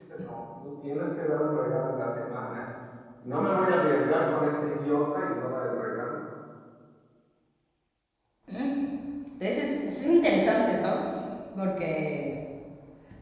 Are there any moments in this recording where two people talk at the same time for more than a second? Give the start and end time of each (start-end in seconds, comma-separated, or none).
none